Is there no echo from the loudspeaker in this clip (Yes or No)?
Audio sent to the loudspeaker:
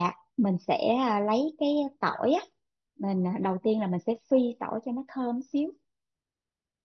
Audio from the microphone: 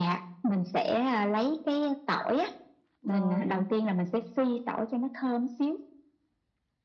No